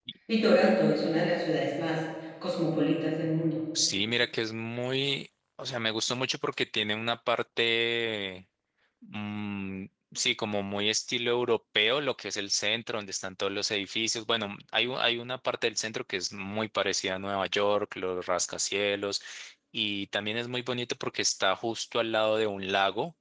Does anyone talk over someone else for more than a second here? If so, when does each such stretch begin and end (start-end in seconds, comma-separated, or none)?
none